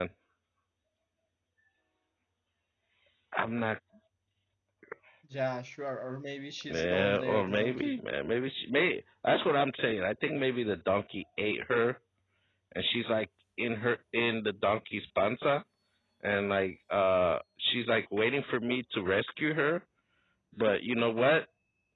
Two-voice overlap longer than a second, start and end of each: 6.7-8.0

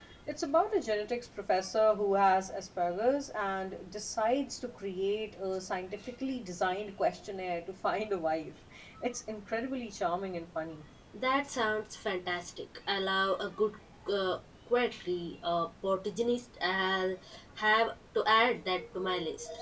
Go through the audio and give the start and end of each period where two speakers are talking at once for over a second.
none

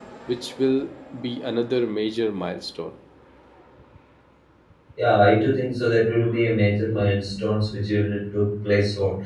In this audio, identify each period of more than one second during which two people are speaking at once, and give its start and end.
none

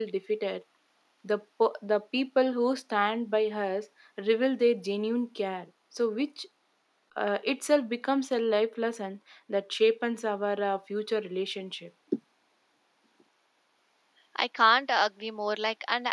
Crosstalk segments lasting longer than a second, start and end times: none

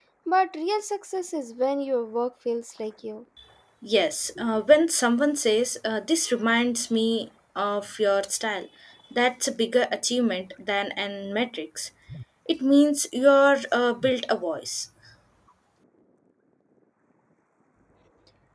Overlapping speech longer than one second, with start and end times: none

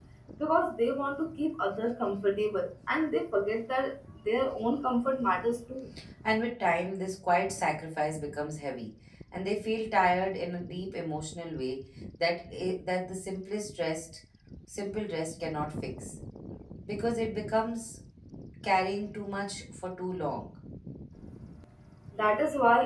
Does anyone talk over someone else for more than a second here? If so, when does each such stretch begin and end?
none

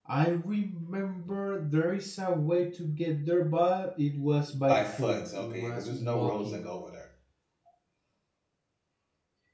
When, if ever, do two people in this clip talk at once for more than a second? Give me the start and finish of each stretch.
4.7-6.6

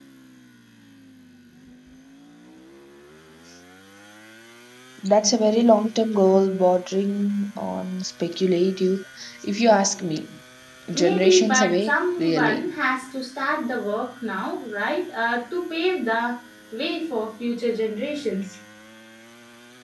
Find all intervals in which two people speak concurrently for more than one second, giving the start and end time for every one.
10.9-12.7

